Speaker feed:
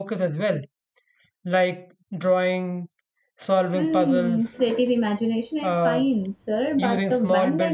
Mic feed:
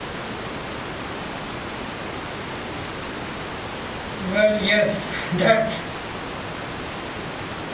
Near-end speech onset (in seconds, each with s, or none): 4.2 s